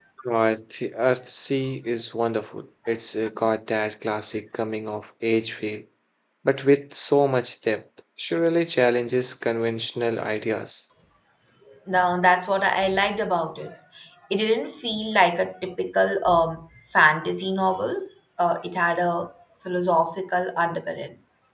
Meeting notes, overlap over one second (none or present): none